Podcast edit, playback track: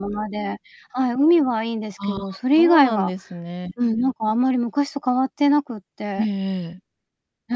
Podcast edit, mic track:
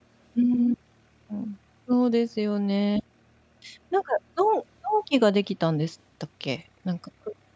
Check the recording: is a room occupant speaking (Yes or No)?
Yes